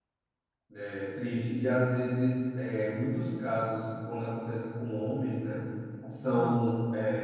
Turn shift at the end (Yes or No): No